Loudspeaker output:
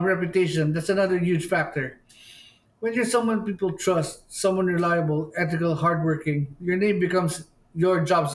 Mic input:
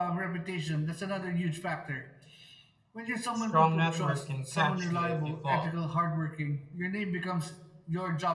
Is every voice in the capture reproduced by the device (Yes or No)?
No